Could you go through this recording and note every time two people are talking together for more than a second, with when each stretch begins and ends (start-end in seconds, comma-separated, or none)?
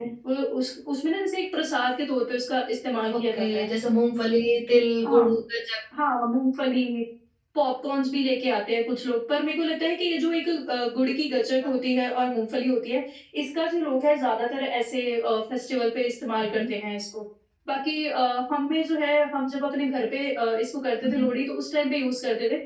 none